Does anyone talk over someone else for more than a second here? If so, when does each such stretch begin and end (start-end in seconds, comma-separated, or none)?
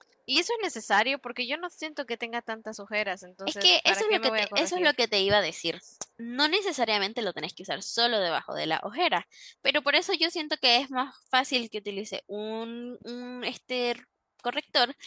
3.5-4.9